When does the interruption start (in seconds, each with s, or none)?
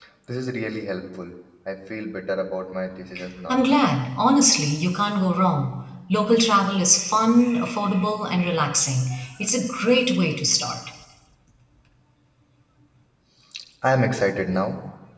none